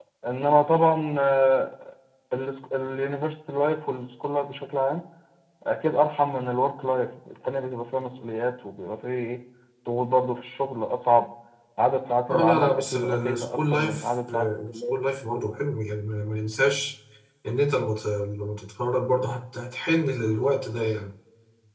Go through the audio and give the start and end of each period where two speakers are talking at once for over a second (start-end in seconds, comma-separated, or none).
12.3-14.9